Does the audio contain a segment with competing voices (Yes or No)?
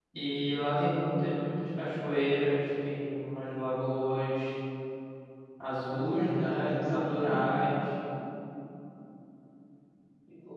Yes